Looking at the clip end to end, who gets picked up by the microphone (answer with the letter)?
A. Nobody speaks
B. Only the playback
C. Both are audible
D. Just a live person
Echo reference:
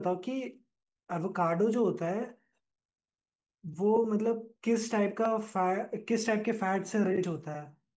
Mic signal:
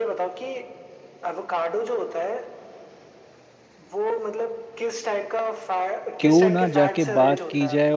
C